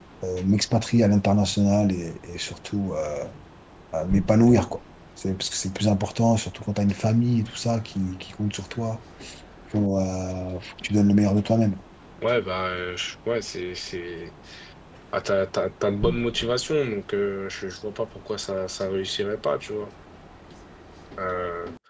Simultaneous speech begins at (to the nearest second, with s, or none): none